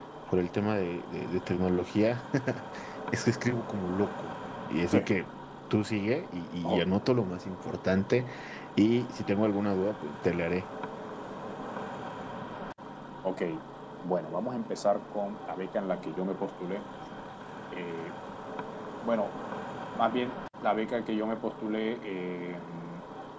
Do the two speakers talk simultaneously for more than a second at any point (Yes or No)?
No